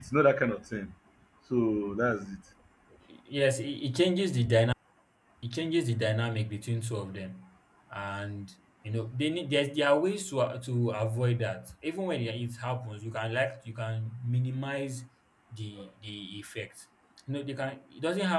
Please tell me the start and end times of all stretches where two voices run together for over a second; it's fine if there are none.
none

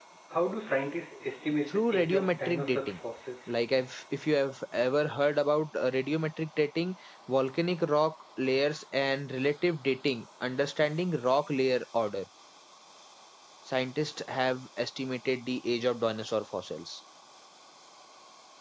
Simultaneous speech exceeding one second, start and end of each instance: 1.7-3.0

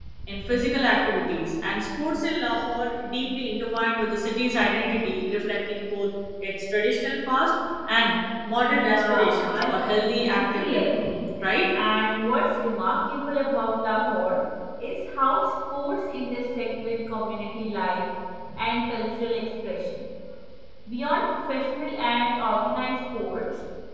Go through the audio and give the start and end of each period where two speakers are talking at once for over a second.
8.7-10.9

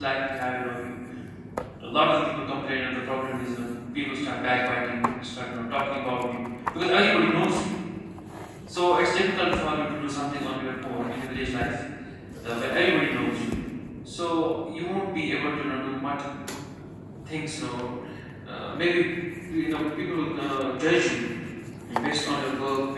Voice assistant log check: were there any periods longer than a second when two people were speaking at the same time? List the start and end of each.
none

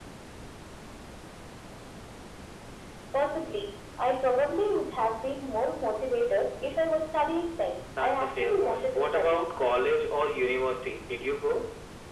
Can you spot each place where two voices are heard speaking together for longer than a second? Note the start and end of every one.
8.0-9.4

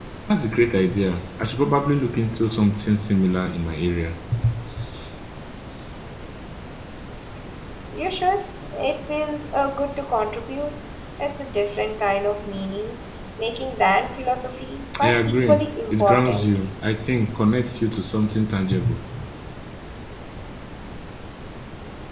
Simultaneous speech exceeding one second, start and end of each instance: 15.0-16.5

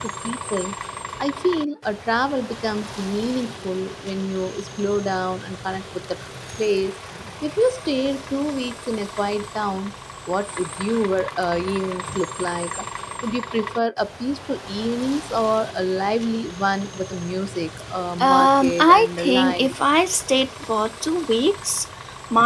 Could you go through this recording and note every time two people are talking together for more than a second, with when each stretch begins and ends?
18.2-19.8

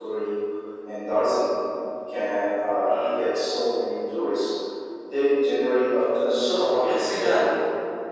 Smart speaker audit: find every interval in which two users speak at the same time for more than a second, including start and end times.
6.3-7.5

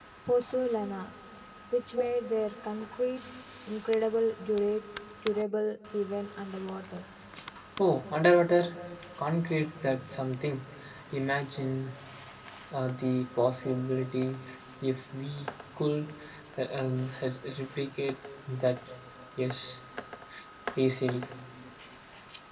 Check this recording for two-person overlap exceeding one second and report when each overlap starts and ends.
none

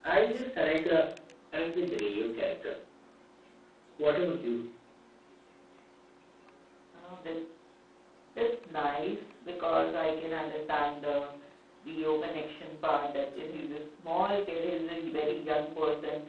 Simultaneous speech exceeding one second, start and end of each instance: none

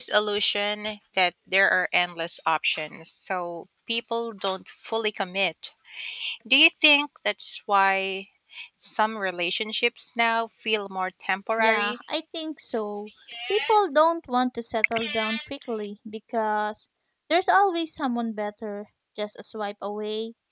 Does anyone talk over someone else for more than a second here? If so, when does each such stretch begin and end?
none

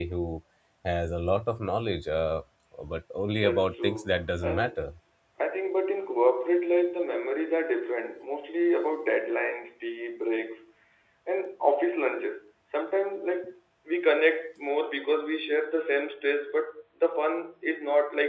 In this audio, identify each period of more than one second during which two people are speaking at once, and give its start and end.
3.3-4.9

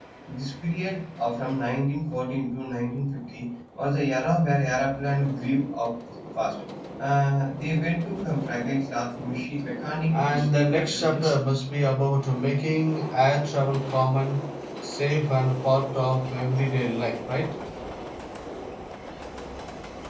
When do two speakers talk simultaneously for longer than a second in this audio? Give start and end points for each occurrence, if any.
10.1-11.3

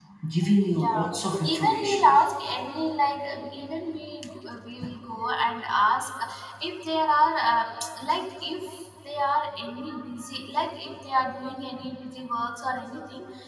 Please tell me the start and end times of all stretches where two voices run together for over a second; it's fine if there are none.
0.7-2.2

